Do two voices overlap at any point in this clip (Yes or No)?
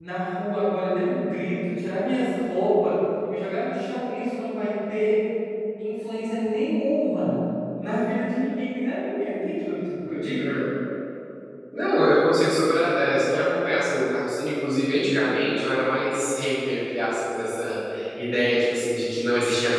No